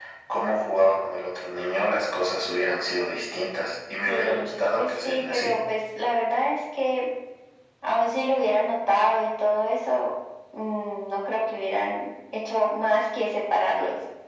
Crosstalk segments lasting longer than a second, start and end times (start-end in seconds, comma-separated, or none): 4.0-5.6